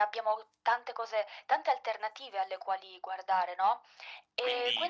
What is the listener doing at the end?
taking over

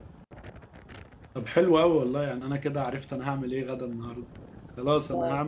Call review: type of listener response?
listening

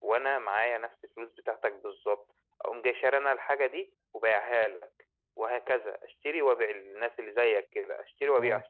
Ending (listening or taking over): listening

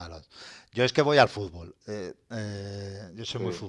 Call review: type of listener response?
listening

